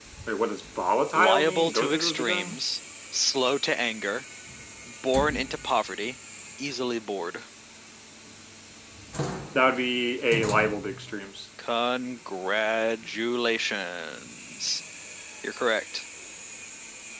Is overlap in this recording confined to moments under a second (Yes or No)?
No